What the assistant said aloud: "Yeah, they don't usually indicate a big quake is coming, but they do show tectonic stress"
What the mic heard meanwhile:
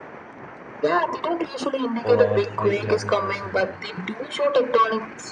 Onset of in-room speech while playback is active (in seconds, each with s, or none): 2.0 s